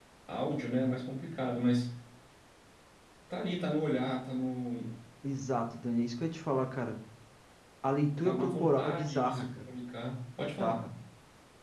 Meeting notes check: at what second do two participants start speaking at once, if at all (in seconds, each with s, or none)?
8.2 s